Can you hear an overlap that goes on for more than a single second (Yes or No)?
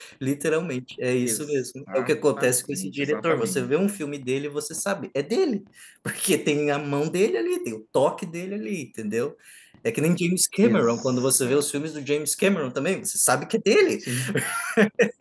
Yes